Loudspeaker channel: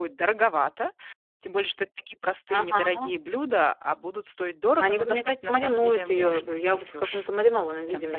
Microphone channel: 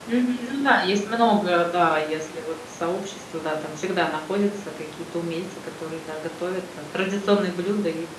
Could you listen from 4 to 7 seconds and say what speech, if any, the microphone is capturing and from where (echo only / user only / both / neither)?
user only